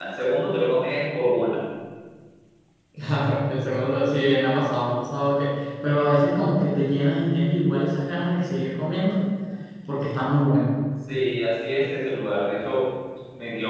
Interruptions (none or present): none